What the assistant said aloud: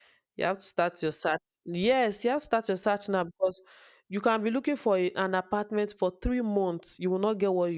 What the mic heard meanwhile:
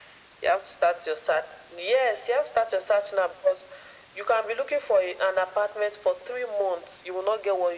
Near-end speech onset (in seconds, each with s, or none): none